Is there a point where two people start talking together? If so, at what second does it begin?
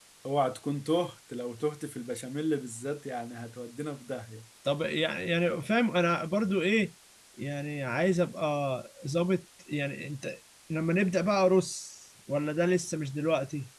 none

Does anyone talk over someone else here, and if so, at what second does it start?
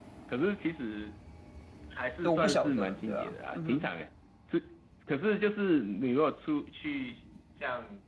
2.3 s

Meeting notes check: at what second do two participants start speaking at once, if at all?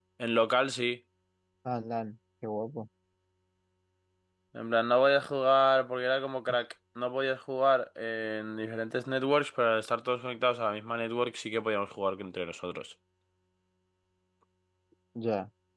none

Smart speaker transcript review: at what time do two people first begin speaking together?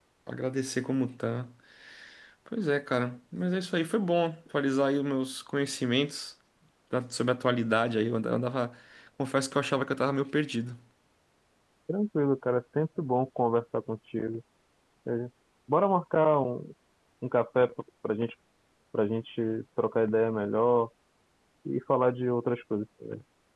none

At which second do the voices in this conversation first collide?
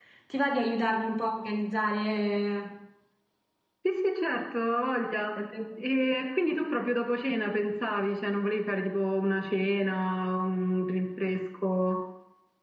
none

